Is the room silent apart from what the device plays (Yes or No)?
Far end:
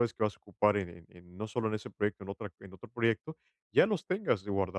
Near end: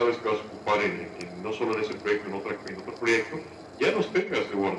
Yes